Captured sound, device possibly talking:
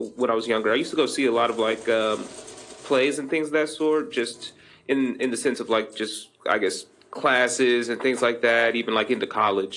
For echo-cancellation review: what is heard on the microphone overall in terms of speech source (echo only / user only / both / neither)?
echo only